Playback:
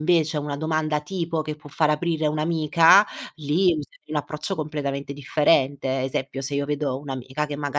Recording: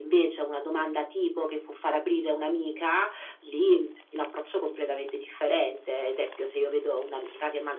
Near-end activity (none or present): none